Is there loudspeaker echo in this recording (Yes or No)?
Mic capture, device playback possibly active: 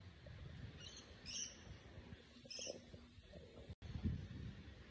No